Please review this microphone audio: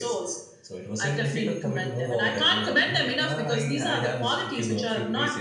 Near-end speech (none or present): none